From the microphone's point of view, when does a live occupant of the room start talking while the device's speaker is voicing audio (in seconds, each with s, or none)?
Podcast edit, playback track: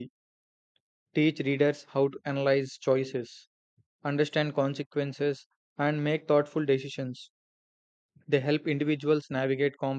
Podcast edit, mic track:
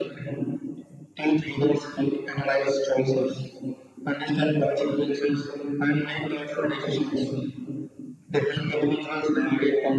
none